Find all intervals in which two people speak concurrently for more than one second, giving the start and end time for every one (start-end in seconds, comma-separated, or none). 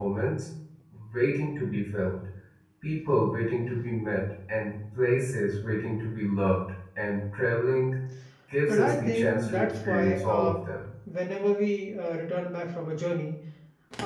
8.7-10.5